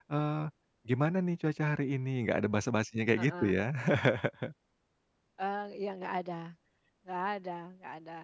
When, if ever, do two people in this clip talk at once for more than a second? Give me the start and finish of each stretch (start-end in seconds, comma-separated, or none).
none